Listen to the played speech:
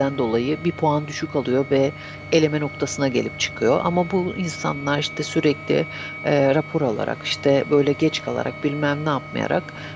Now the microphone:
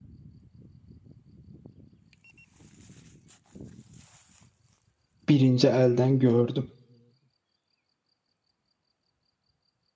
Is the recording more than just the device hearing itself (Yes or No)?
Yes